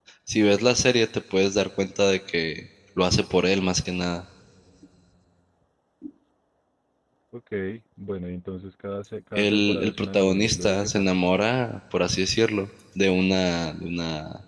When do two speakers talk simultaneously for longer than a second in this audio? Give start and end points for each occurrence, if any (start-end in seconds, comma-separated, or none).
9.3-11.2